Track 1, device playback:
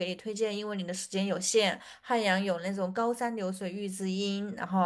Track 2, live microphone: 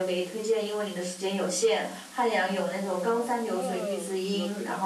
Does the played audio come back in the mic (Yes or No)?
Yes